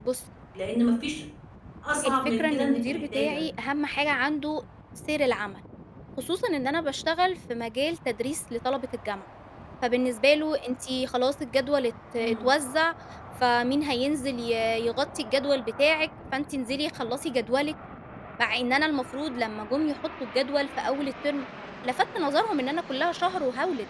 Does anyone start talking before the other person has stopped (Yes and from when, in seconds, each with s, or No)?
Yes, from 2.0 s